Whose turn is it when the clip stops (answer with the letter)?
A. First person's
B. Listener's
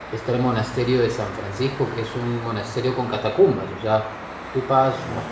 A